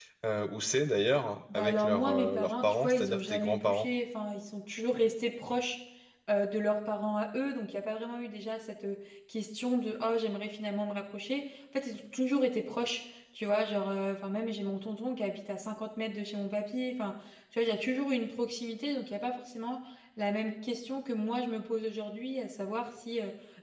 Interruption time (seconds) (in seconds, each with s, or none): 1.5 s